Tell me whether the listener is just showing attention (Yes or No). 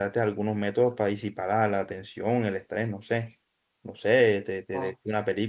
Yes